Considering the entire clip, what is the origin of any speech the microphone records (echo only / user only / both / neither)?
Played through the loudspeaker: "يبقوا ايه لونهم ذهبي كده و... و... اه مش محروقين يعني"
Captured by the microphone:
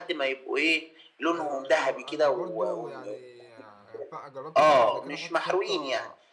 both